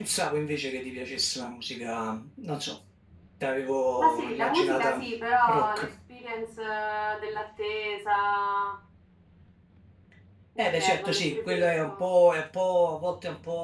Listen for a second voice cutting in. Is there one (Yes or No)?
Yes